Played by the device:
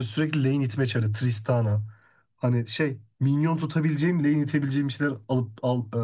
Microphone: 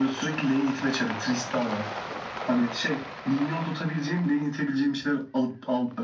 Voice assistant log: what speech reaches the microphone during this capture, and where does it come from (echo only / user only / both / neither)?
echo only